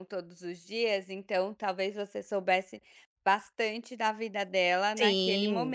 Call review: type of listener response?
taking over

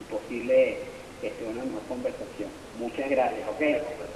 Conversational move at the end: taking over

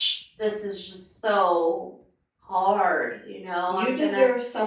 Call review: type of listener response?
taking over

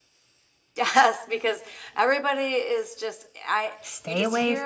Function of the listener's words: taking over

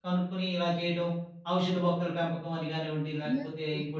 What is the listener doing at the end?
taking over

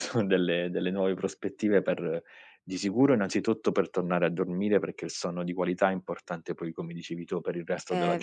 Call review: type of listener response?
listening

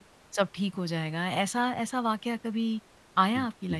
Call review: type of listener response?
taking over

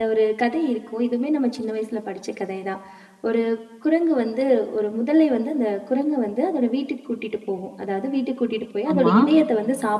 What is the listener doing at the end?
listening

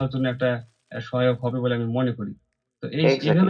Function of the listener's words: taking over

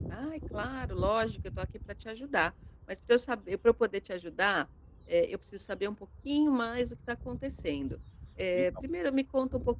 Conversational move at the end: listening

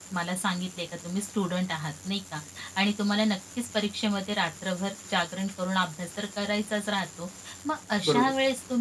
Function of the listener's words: listening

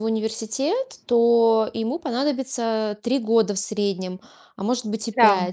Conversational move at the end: listening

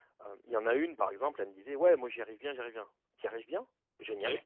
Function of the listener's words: listening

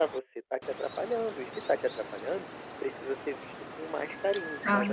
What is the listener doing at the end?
taking over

